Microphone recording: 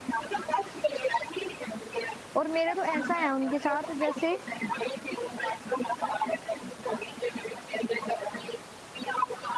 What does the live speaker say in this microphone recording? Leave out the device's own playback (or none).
और मेरे तो ऐसा है उनके साथ जैसे